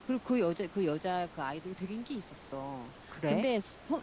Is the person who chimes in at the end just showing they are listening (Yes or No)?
Yes